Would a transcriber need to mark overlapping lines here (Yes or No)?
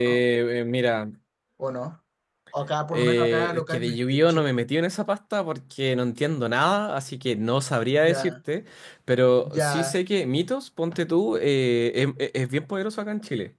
Yes